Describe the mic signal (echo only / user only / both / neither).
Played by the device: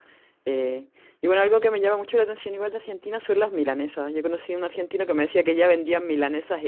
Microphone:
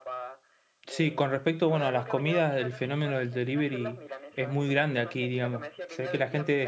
both